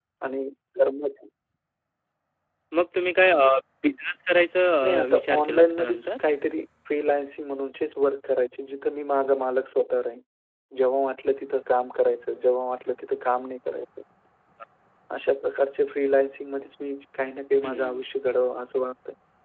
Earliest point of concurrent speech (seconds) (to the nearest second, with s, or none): 5 s